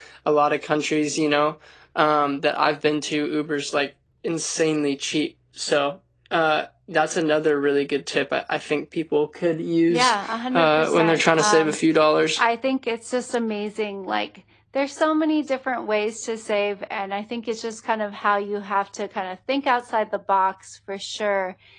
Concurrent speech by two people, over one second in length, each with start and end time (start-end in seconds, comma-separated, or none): 10.5-11.8